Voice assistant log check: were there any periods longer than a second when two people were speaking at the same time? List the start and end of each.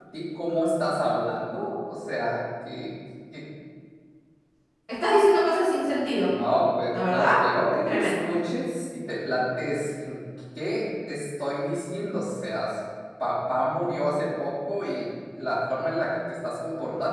none

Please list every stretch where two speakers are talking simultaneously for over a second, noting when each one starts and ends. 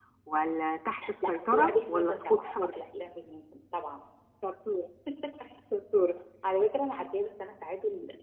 1.3-2.7

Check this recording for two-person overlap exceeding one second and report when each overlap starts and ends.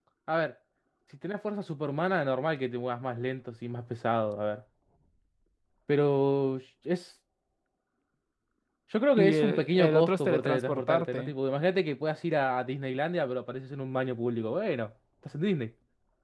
9.2-11.3

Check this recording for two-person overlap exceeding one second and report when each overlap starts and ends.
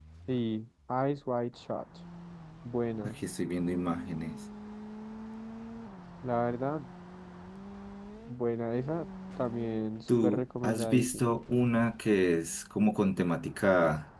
10.1-11.3

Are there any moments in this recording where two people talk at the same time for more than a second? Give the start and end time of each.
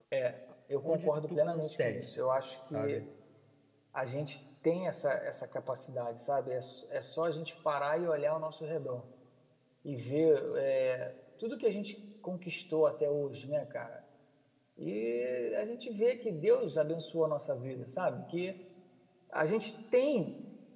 0.8-2.1

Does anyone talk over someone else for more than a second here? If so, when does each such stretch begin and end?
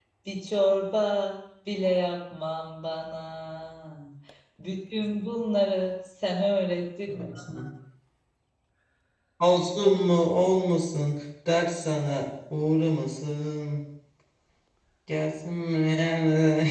none

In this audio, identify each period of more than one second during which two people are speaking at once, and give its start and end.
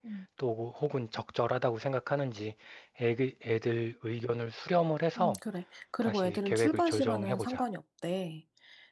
6.0-7.6

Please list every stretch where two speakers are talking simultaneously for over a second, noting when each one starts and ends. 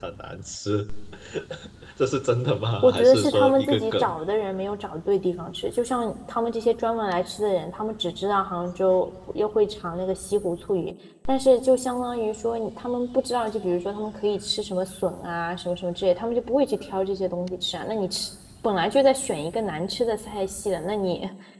2.8-4.0

